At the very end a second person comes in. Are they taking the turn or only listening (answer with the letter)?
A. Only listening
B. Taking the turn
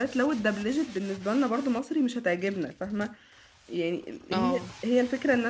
A